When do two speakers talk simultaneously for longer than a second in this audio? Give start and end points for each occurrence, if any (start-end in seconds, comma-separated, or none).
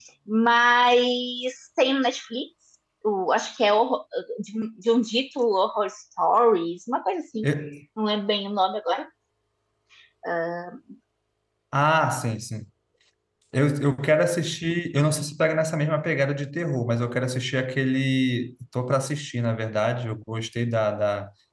none